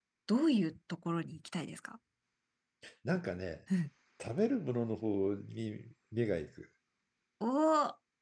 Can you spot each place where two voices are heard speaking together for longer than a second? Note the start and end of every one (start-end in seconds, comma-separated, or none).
none